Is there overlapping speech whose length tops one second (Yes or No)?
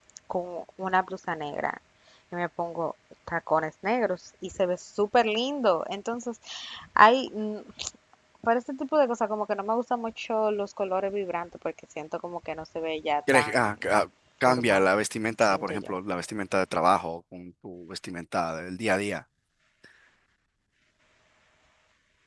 No